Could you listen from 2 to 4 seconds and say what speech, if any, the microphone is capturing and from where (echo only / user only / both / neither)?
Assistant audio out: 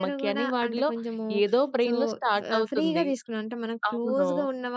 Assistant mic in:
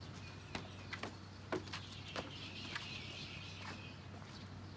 neither